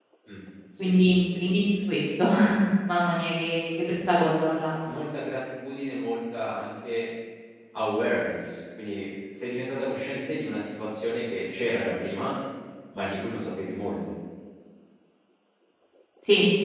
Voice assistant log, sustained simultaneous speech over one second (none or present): none